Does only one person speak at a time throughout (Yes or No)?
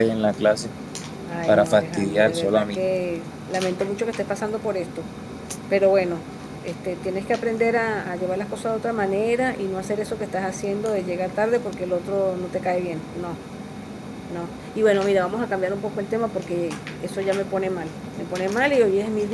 No